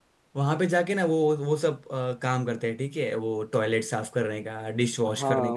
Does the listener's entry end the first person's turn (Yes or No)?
Yes